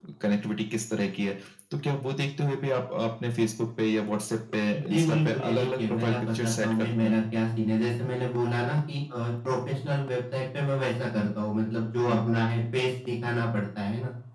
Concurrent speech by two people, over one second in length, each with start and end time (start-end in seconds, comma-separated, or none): 4.9-7.2